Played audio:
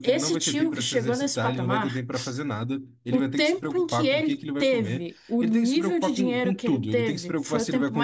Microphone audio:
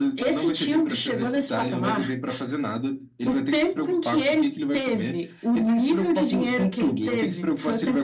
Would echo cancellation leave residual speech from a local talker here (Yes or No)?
No